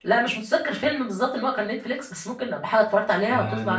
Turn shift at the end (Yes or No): Yes